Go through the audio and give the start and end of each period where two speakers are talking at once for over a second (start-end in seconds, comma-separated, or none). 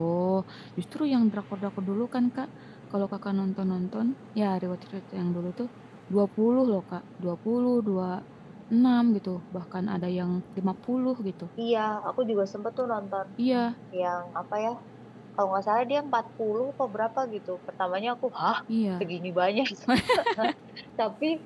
none